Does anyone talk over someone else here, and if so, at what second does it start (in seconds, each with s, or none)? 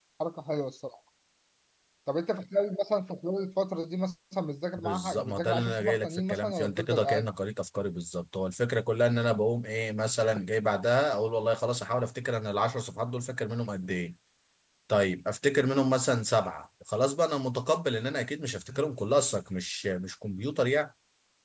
4.8 s